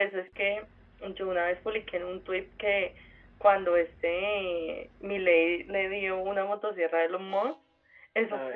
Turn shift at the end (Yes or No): No